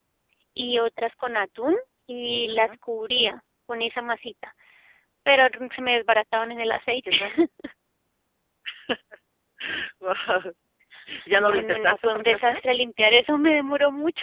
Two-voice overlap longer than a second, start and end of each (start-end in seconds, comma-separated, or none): 11.3-12.6